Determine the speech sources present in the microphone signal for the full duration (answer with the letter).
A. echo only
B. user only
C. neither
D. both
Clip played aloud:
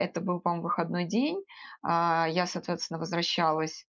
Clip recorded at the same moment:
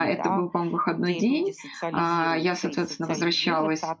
D